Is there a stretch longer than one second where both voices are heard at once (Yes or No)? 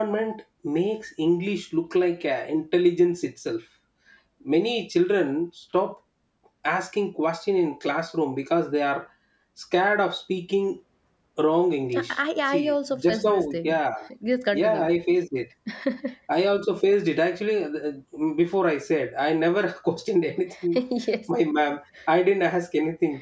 Yes